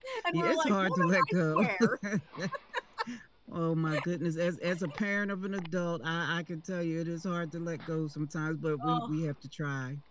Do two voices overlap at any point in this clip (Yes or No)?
Yes